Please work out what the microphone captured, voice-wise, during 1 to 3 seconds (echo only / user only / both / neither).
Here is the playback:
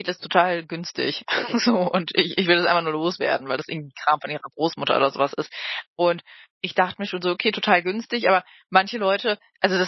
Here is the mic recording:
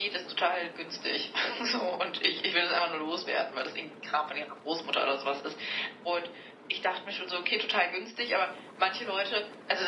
echo only